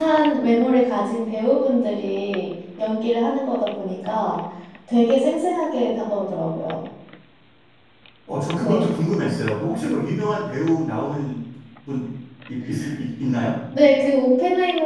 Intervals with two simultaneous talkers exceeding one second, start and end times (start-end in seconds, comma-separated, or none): none